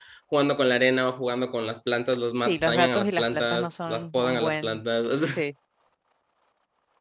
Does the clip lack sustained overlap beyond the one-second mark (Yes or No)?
No